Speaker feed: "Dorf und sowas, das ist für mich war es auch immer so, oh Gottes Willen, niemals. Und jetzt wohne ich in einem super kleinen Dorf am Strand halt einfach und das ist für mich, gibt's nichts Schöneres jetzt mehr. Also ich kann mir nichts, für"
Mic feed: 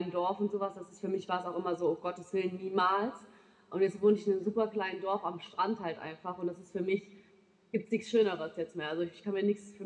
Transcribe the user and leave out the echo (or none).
none